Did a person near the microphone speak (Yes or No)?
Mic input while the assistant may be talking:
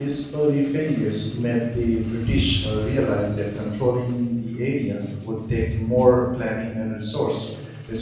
Yes